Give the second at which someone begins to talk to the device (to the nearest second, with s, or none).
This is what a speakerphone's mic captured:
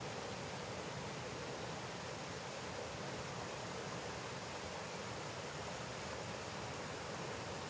none